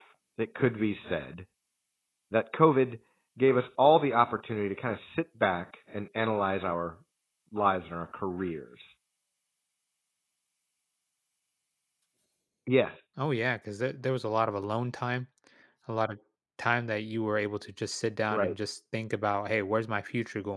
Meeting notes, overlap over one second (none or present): none